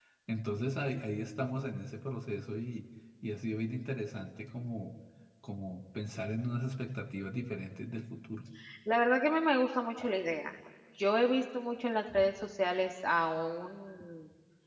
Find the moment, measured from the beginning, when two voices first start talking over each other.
none

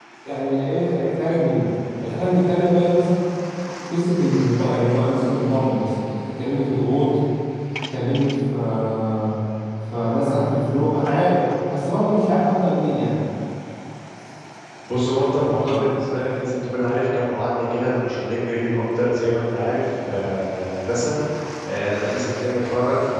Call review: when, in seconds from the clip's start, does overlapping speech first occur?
none

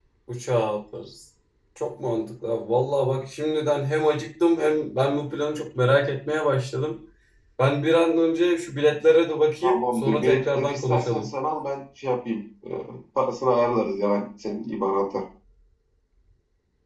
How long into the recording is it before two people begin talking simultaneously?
9.6 s

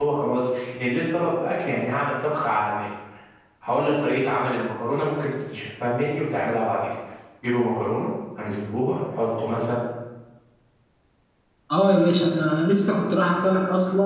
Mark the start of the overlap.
none

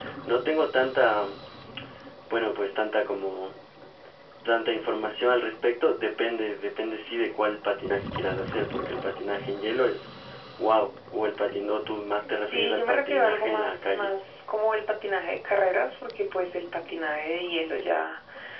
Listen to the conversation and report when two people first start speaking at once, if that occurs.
12.5 s

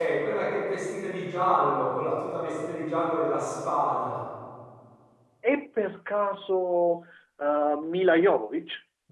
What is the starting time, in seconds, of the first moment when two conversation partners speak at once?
none

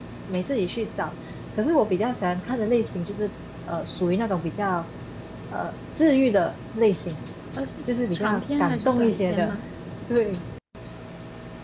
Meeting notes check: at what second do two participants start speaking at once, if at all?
8.1 s

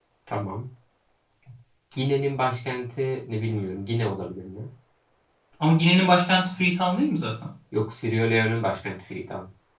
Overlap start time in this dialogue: none

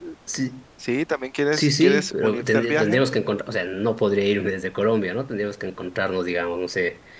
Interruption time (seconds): 1.5 s

